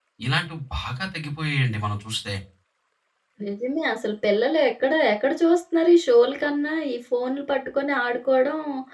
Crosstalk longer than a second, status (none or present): none